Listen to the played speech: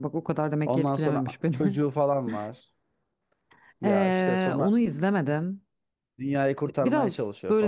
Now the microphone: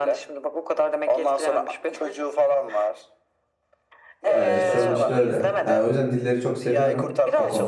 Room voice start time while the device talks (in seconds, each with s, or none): 4.3 s